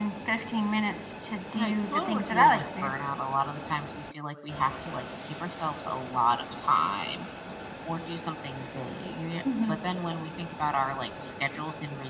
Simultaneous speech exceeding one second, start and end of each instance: 1.5-2.9

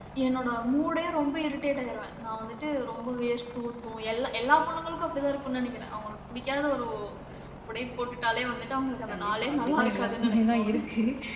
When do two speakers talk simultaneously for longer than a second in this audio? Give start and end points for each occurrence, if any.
9.1-10.8

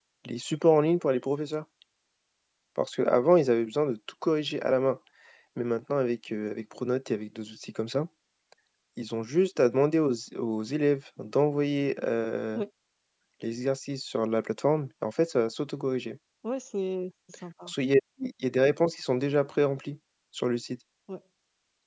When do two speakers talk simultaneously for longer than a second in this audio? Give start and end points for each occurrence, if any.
none

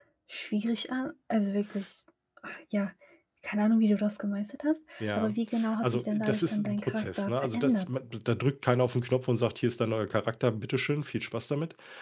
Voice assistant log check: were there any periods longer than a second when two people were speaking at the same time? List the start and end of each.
5.8-7.9

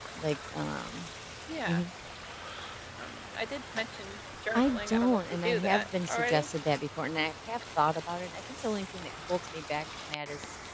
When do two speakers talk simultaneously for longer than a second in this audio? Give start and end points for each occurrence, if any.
4.5-6.5

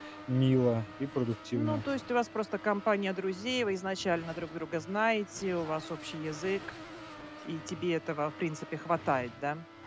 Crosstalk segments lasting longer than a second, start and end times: none

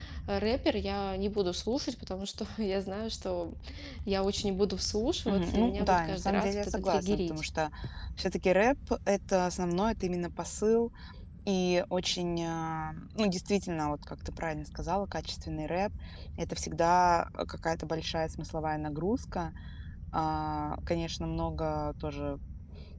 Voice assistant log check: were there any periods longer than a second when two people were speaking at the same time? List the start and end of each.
5.3-7.4

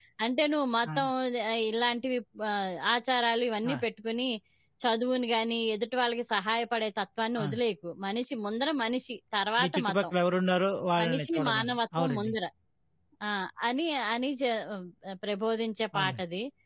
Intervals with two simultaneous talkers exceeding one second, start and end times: 11.0-12.3

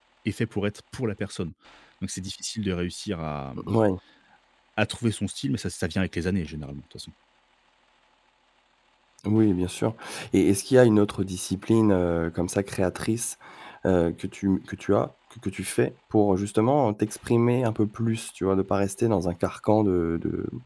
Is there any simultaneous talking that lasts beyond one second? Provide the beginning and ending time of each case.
none

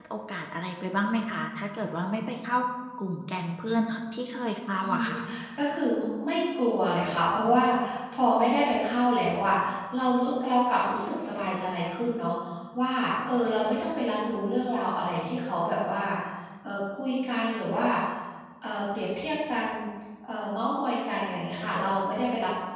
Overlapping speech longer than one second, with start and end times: none

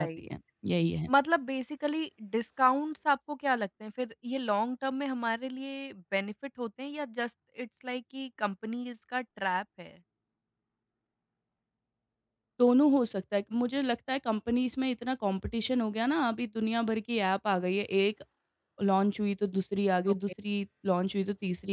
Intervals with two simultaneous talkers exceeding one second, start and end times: none

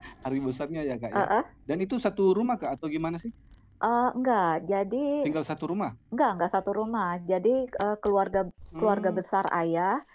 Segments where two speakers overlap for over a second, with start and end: none

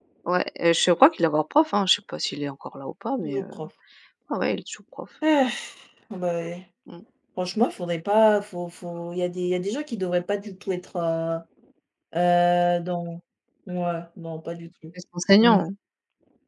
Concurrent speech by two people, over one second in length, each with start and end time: none

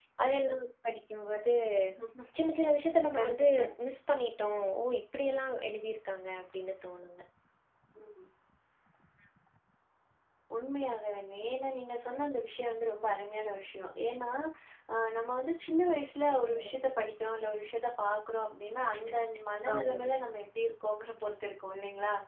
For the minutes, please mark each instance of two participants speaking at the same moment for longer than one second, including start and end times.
none

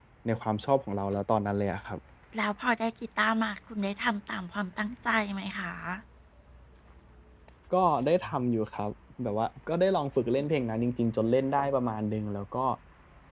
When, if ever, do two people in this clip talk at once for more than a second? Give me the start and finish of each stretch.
none

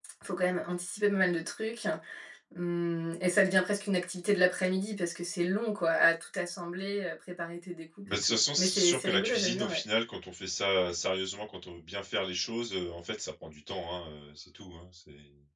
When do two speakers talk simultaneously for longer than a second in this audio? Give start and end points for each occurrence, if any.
8.1-9.8

